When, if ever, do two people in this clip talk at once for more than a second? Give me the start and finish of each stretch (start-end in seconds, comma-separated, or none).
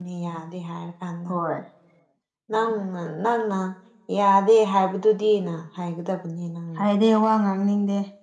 none